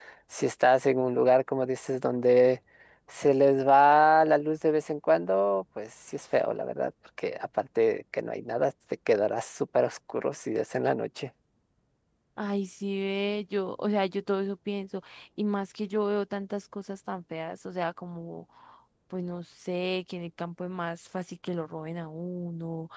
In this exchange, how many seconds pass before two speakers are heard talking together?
none

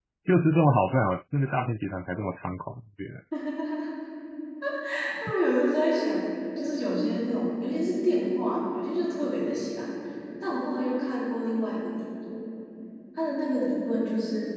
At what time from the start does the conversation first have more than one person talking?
none

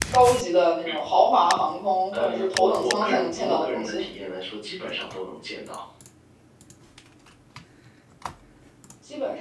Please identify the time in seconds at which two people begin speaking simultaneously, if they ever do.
2 s

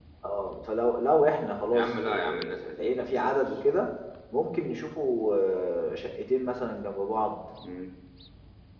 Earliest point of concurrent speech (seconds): 2 s

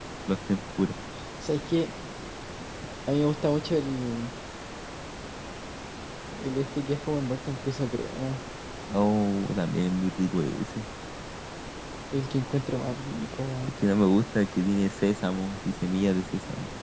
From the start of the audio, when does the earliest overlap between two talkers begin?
none

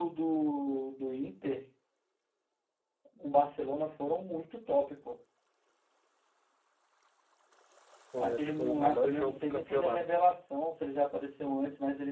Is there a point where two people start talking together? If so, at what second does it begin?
8 s

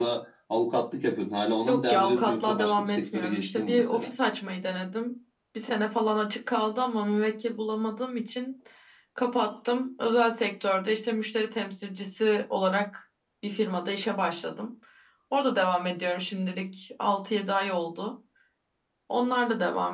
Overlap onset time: 2 s

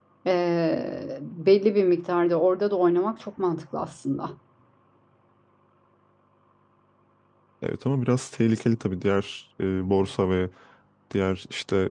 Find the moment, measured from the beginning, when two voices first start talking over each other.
none

